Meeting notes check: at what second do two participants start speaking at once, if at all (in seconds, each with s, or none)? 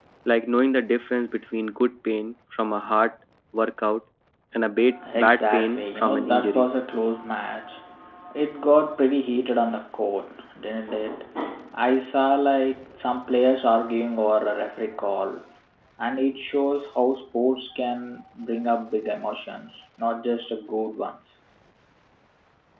5.2 s